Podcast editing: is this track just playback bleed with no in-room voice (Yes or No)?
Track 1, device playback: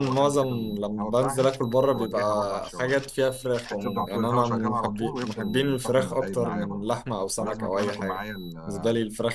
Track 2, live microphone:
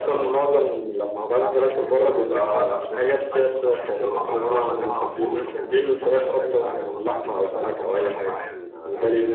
No